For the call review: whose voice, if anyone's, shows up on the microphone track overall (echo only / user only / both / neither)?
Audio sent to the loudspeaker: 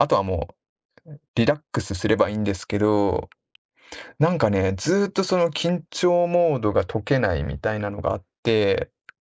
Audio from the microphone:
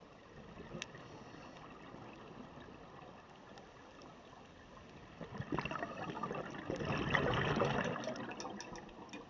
neither